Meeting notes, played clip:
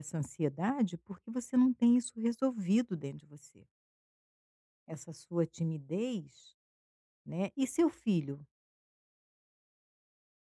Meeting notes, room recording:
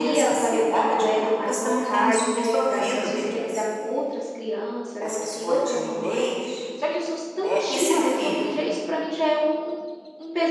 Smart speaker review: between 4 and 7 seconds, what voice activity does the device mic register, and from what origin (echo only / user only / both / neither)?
both